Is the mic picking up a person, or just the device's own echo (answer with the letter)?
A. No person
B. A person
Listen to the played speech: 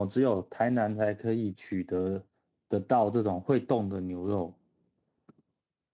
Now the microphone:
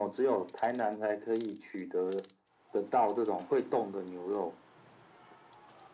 A